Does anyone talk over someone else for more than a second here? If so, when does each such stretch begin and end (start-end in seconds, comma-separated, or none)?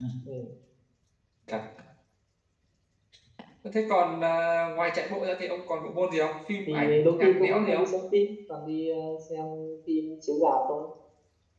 6.6-7.9